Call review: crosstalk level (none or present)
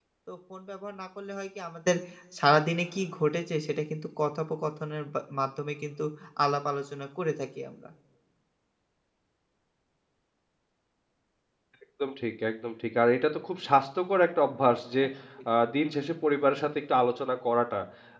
none